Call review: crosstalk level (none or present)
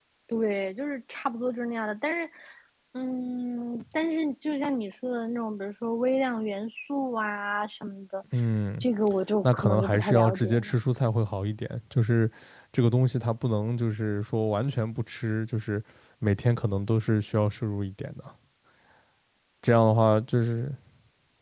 present